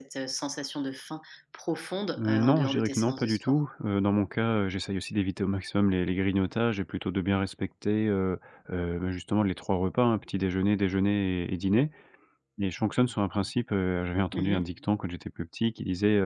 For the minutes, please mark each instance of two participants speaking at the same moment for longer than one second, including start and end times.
2.2-3.6

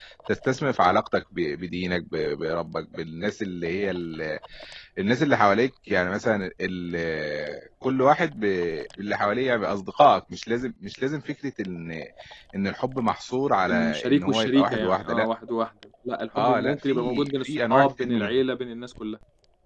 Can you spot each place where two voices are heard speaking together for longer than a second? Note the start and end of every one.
13.7-15.3, 16.4-18.4

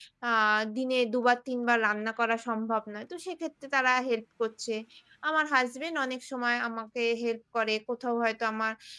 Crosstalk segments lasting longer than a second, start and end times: none

